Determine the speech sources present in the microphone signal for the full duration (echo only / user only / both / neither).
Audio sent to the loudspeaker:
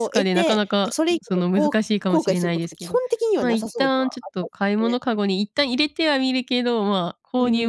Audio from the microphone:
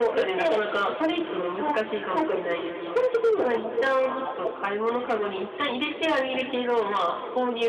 echo only